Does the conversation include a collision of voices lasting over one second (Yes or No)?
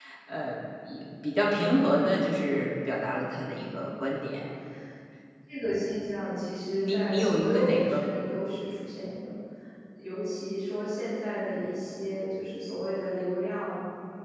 Yes